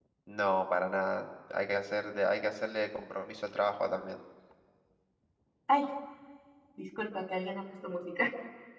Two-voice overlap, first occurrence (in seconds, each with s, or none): none